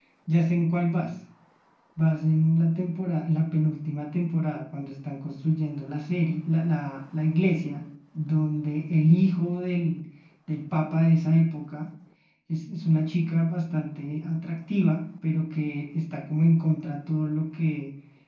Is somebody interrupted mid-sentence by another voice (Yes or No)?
No